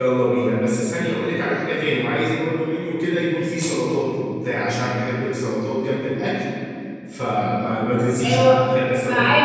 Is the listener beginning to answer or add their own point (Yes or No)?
Yes